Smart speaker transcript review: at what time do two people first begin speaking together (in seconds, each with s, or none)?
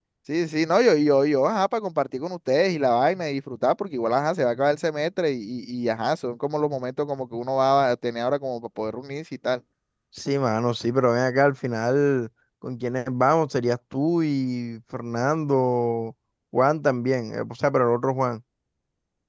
none